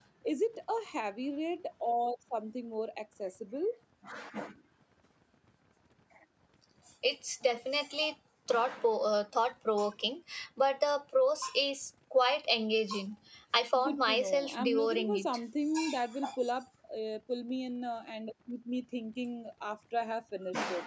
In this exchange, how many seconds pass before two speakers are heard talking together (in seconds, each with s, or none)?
13.8 s